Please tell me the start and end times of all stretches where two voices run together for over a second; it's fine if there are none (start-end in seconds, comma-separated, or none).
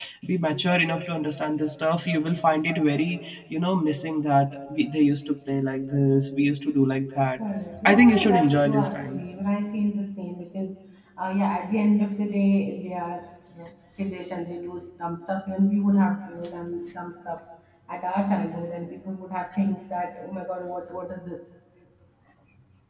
7.8-9.2